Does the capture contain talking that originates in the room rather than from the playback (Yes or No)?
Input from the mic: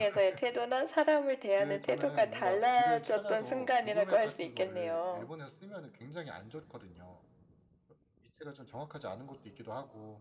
Yes